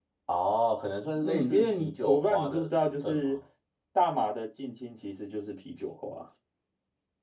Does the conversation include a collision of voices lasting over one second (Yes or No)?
Yes